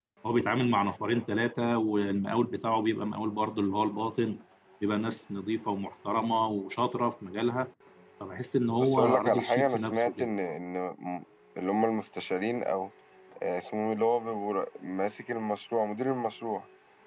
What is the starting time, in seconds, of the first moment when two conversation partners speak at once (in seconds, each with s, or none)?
8.8 s